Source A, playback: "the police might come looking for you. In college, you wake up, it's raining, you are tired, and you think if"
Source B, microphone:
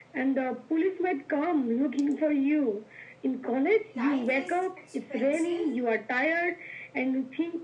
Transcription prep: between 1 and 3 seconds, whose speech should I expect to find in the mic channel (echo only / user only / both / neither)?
echo only